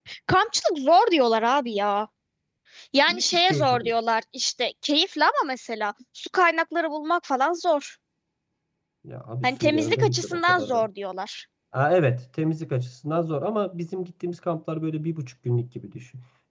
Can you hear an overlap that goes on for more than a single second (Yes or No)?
Yes